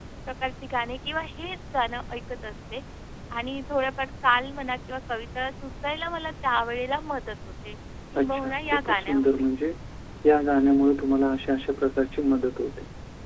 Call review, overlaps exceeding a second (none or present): present